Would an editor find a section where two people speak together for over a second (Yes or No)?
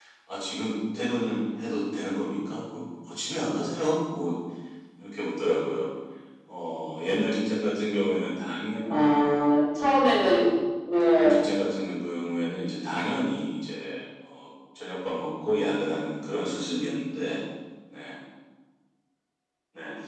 No